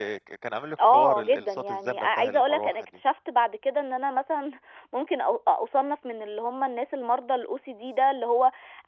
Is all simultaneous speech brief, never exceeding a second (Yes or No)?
No